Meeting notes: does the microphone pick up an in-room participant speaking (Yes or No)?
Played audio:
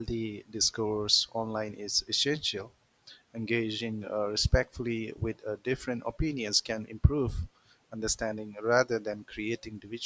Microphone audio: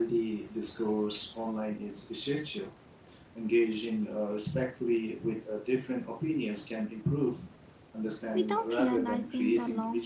Yes